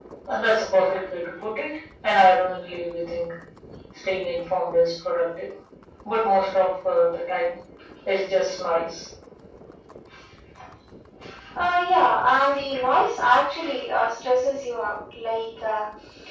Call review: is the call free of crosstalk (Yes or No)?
Yes